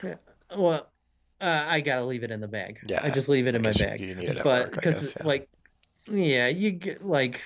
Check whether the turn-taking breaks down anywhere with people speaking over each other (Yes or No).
Yes